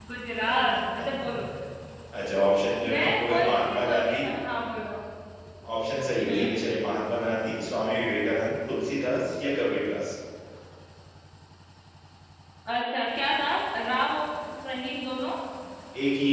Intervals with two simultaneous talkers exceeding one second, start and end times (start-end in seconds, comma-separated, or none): 2.9-4.2